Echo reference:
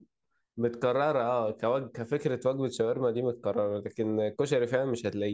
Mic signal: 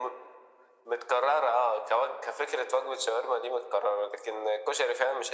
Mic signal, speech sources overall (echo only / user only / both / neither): echo only